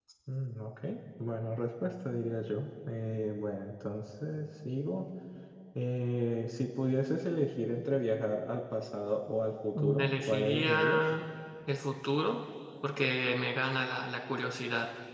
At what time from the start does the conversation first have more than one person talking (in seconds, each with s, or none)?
9.8 s